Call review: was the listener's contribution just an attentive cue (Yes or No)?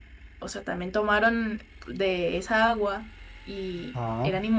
Yes